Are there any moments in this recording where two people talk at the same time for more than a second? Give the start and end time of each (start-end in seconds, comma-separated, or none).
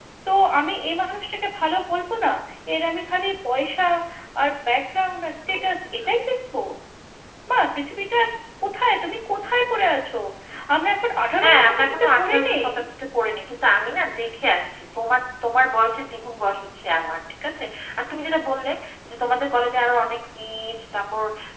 11.4-12.7